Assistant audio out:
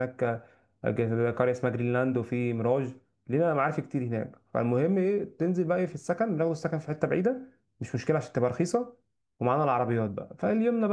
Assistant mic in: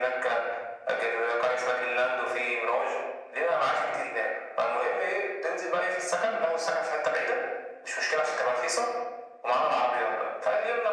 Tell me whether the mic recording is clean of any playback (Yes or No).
No